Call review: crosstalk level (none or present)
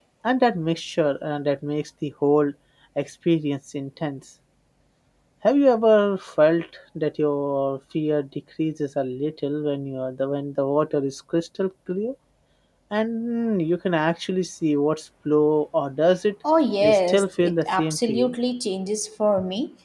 present